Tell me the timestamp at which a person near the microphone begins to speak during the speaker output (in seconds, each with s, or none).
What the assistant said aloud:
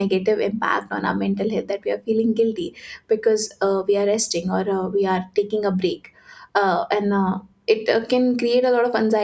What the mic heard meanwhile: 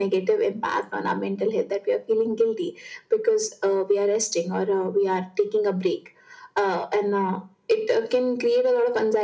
none